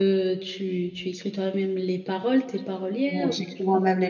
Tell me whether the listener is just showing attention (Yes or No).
No